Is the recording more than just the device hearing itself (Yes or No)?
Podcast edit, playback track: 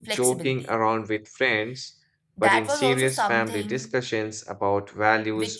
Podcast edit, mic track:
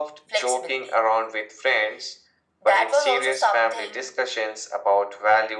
No